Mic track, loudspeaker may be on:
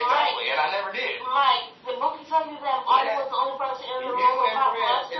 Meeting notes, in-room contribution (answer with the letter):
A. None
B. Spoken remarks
A